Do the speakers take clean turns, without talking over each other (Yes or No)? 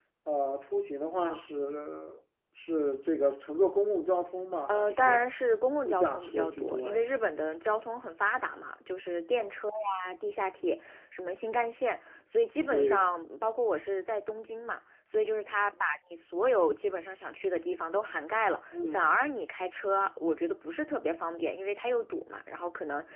No